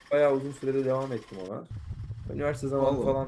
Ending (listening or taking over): listening